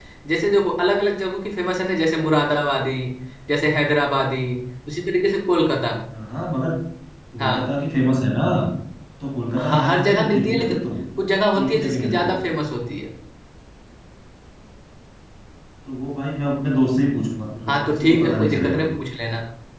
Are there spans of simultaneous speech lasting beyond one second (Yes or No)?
Yes